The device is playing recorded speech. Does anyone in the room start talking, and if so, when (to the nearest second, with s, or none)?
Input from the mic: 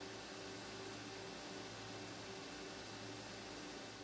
none